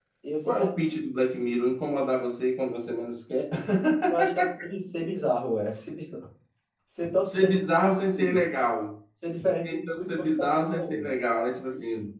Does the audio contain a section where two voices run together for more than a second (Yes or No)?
Yes